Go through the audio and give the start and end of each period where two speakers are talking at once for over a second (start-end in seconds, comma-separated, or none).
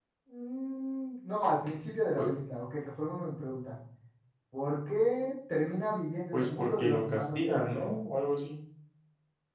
6.3-7.8